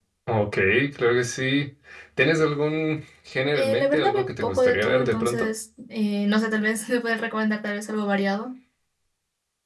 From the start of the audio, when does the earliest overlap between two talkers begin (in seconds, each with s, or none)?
3.5 s